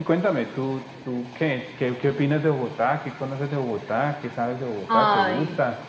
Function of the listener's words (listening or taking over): taking over